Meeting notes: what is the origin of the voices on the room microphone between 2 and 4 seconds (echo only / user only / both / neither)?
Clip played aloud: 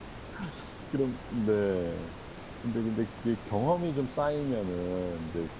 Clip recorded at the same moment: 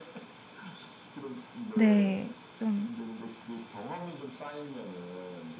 both